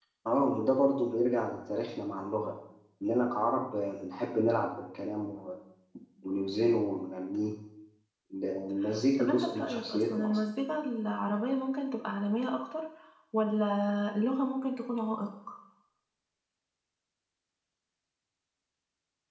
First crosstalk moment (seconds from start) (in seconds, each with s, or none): 9.2 s